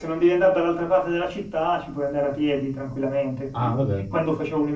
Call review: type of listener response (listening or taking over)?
listening